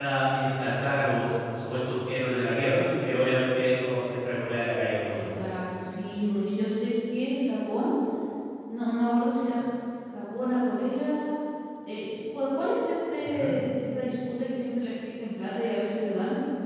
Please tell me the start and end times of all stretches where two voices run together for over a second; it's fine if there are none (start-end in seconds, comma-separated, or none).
none